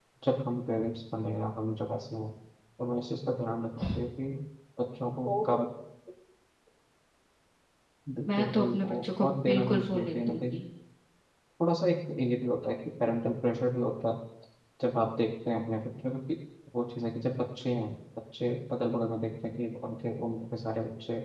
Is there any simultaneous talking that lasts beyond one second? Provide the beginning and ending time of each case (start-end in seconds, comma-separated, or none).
8.3-10.4